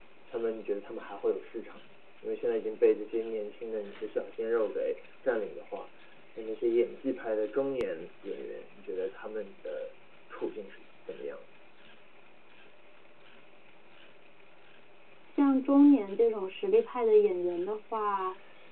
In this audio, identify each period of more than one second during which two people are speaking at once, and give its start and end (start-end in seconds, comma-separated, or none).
none